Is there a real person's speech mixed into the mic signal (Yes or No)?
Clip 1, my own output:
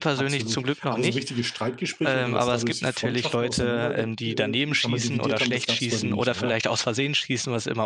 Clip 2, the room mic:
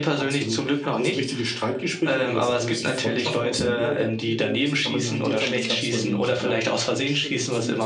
Yes